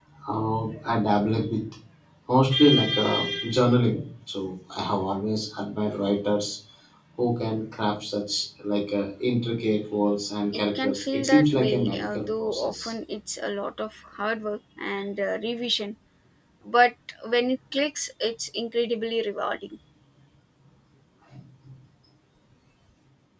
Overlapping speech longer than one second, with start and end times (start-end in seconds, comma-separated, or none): 10.5-12.8